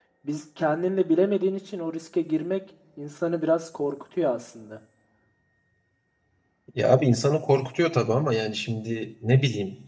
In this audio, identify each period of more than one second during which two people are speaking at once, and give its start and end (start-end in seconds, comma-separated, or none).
none